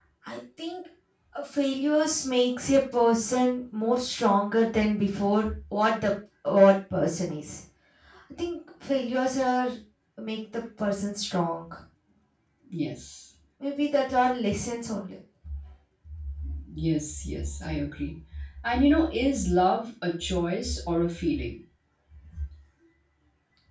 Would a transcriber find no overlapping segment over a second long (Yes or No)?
Yes